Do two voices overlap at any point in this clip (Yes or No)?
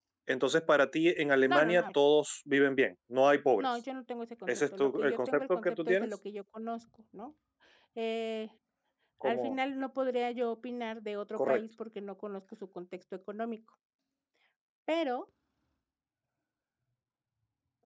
Yes